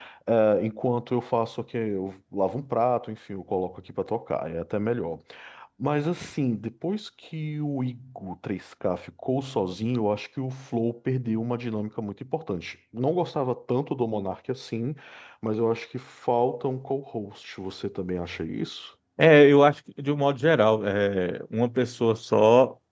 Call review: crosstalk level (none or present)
none